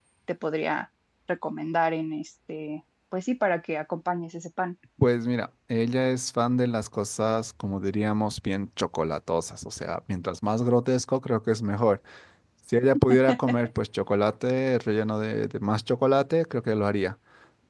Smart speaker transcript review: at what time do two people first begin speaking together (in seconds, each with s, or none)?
none